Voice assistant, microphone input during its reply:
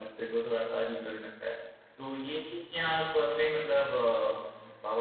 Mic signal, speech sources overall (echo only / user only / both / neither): user only